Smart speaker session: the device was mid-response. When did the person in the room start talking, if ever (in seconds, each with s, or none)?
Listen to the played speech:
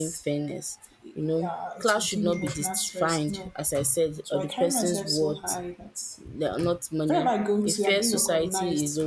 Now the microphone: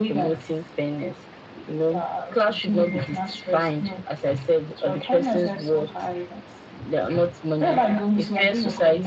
none